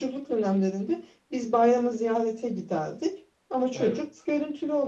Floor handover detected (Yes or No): No